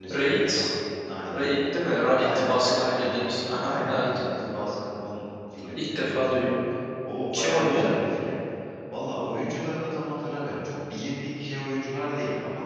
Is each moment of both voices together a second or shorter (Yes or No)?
No